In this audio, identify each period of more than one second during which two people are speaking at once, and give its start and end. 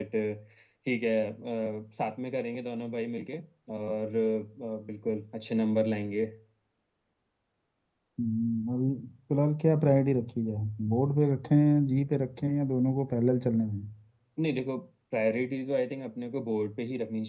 none

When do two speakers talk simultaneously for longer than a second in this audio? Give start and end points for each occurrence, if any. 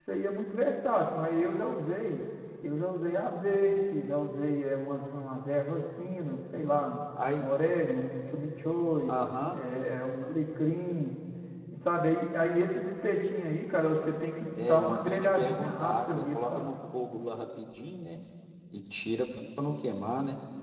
14.6-16.7

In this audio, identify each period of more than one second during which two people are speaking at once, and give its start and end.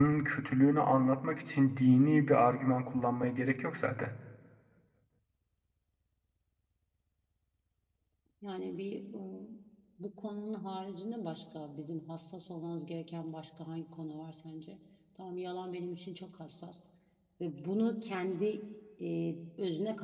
none

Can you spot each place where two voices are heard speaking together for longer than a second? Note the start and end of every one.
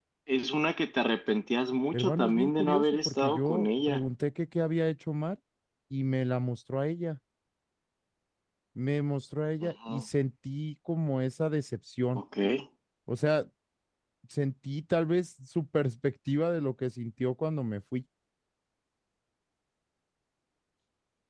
1.9-4.0

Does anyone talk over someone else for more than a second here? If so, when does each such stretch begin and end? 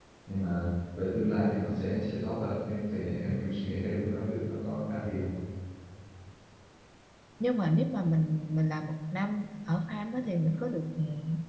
none

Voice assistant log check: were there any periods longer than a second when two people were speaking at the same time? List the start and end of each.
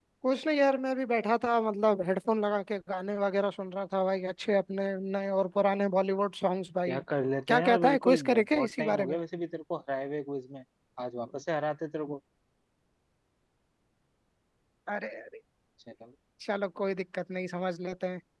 7.5-9.2

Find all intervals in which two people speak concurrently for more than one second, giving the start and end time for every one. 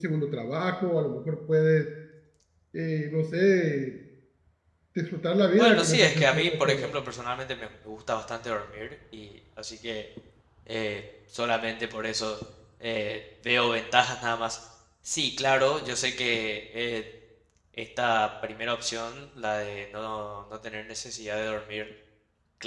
5.6-6.9

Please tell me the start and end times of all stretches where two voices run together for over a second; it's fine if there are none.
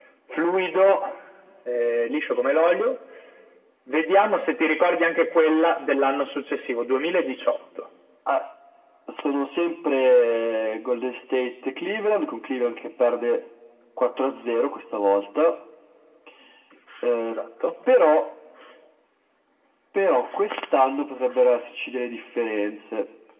none

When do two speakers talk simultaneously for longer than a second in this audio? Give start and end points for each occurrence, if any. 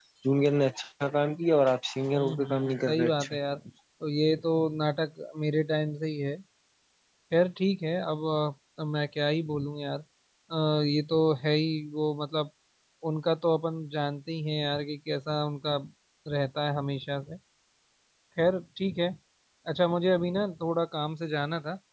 2.1-3.4

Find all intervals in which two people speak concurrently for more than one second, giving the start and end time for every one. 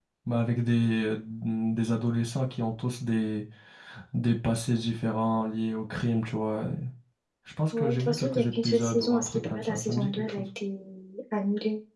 7.7-10.4

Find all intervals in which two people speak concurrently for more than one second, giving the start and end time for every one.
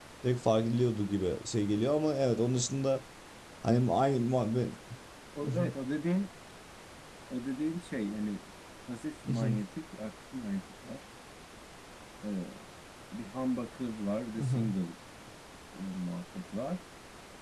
none

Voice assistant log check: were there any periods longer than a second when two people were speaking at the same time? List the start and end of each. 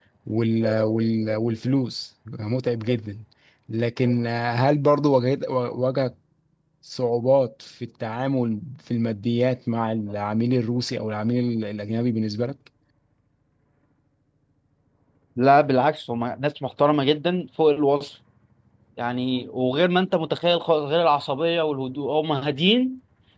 none

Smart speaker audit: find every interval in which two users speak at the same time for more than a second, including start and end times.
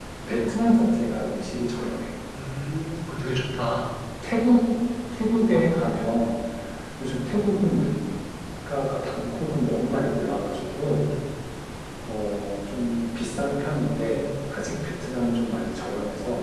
none

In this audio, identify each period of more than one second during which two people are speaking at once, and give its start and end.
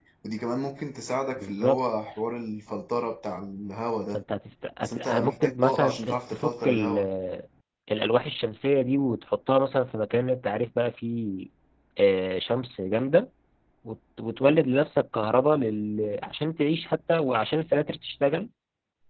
4.8-7.0

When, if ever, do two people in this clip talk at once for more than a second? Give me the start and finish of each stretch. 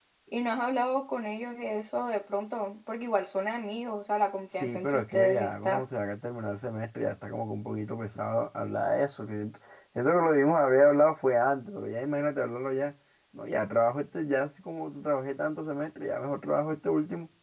4.5-5.8

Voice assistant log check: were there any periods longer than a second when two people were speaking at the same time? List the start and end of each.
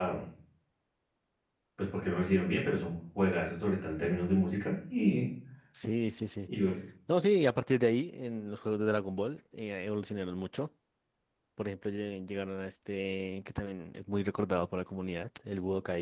none

